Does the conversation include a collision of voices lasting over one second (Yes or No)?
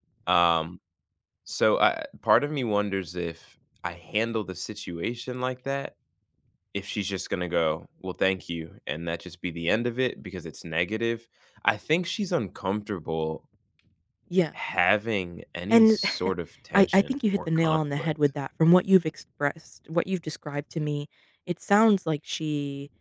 Yes